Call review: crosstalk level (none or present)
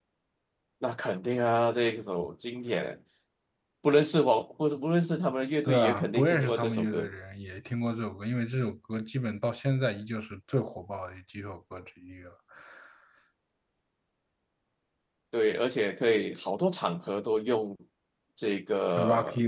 present